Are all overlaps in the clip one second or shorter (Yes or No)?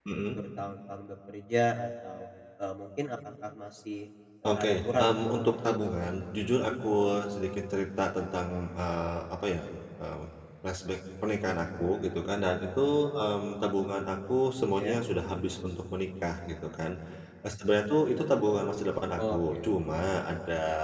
No